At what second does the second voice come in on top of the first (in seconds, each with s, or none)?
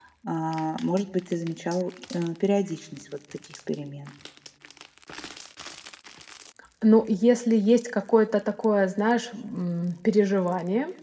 none